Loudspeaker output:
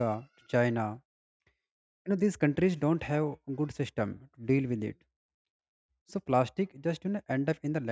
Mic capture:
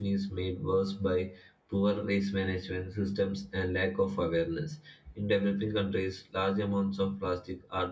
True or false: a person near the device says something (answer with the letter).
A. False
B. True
B